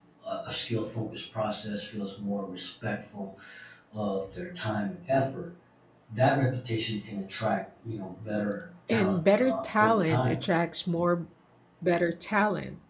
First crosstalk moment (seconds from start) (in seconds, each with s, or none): 8.9 s